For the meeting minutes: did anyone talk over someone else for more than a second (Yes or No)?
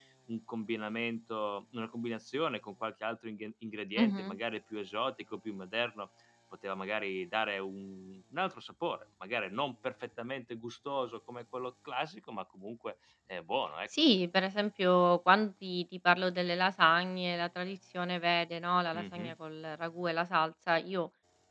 No